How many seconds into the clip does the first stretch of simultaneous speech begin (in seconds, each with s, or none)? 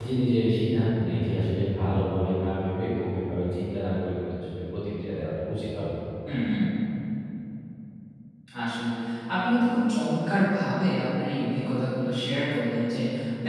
none